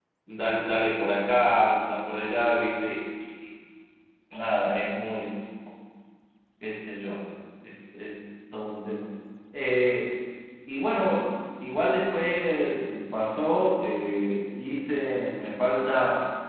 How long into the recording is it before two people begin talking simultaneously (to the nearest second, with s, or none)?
none